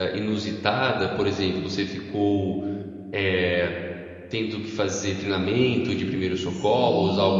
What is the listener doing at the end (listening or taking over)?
taking over